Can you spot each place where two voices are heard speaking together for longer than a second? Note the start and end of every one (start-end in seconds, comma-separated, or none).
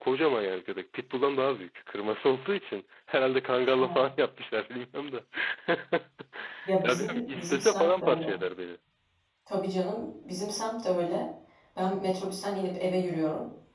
6.8-8.3